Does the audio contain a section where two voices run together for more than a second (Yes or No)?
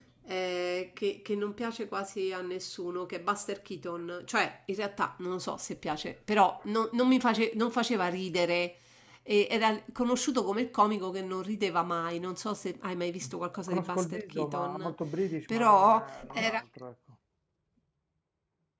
Yes